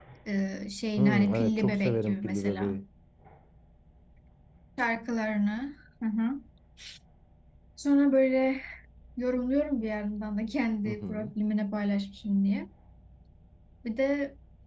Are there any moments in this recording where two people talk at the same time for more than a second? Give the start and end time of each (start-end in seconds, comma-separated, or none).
1.0-2.8